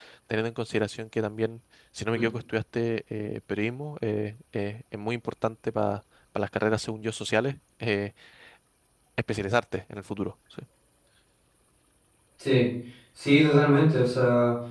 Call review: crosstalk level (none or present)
none